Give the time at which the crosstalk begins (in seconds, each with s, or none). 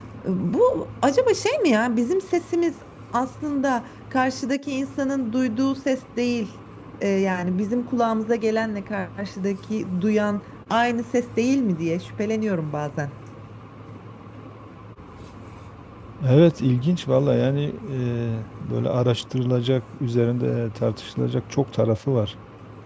none